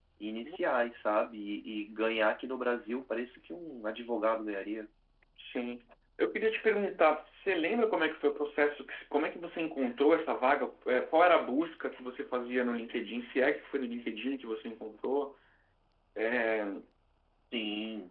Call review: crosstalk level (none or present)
none